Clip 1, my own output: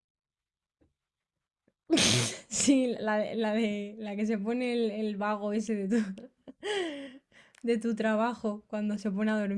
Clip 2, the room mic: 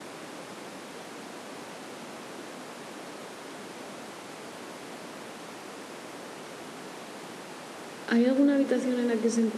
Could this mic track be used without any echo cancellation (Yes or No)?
Yes